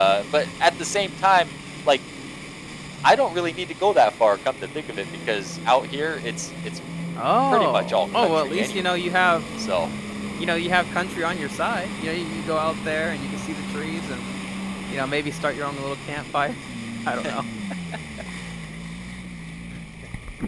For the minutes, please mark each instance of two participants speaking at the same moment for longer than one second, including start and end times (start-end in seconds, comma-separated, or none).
7.5-8.8